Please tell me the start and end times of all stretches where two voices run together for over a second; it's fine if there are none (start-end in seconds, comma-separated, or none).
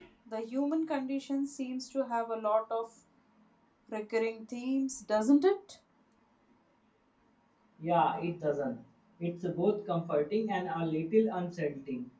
none